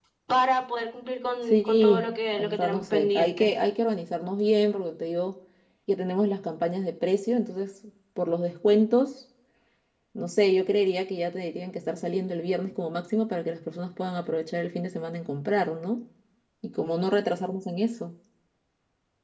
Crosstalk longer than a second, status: present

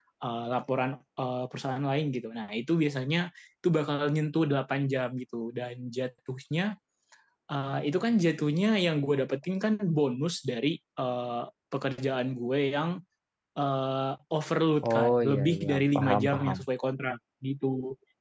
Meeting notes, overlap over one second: present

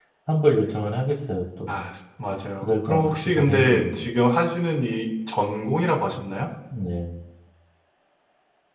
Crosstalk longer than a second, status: present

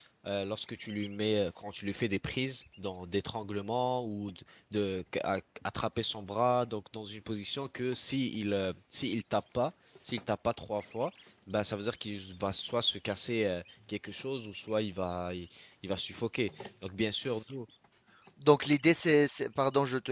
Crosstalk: none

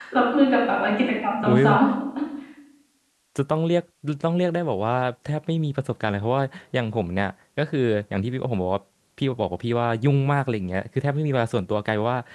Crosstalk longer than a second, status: none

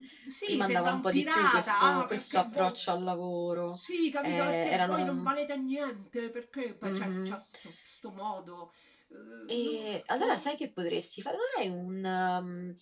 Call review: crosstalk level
present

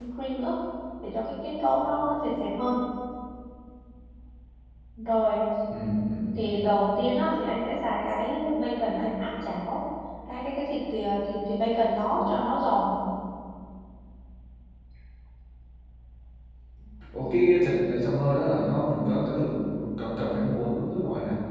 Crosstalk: none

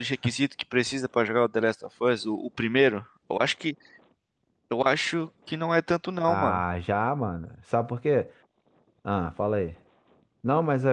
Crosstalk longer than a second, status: none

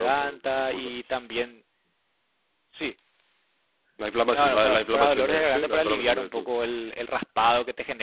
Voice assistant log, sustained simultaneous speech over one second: present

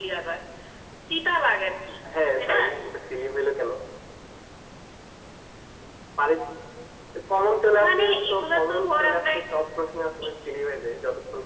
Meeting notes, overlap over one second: present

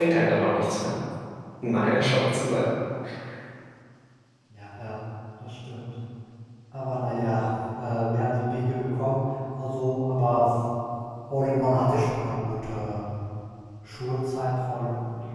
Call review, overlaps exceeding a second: none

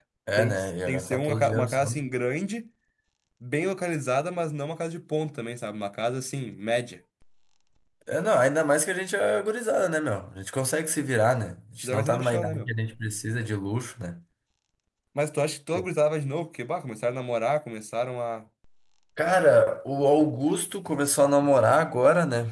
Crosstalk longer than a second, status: present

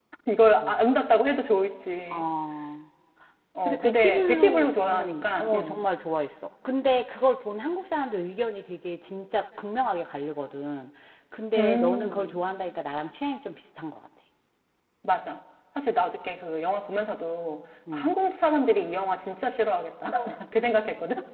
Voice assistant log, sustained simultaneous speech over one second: present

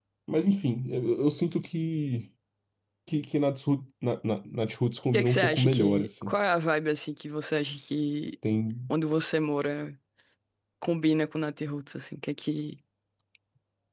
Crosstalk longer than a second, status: present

